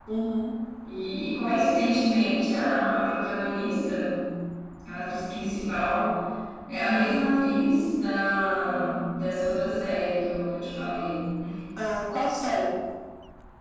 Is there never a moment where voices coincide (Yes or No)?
Yes